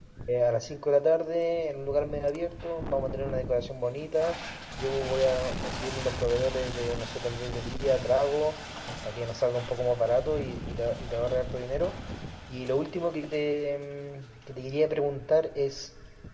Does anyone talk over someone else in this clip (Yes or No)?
No